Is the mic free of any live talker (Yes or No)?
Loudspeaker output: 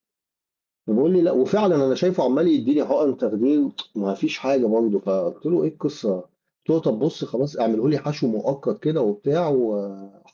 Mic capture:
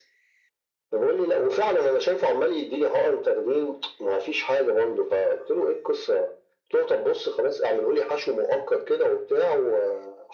Yes